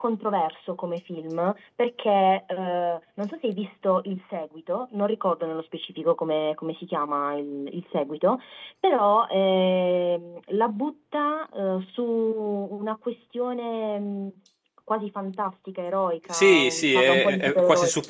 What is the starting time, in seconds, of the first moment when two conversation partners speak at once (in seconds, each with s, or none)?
16.3 s